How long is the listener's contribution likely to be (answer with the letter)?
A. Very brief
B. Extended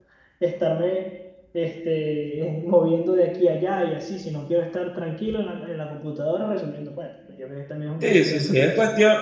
B